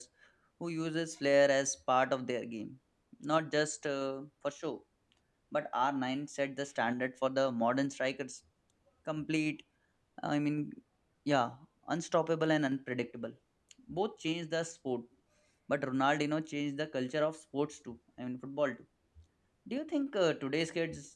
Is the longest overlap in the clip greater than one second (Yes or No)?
No